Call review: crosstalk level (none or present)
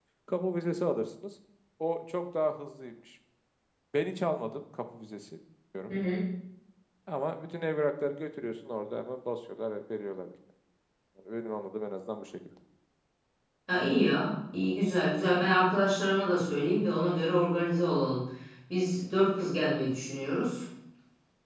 none